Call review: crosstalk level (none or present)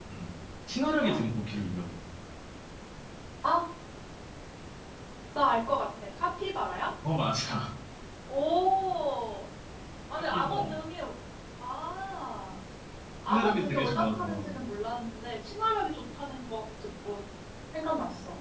present